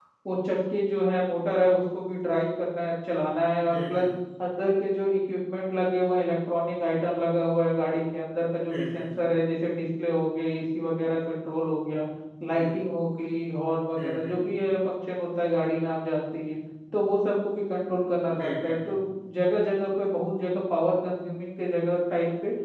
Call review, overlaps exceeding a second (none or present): none